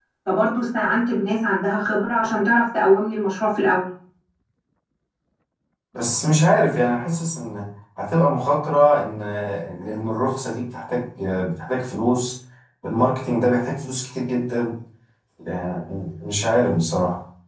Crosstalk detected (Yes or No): No